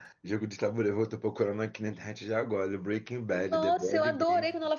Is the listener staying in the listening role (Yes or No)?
No